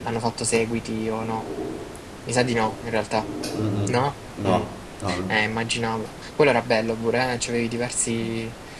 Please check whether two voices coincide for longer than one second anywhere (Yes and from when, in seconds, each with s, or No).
No